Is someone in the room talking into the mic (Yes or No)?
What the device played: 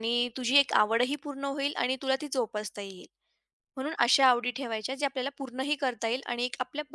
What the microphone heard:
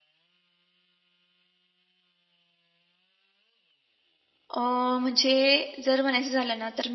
Yes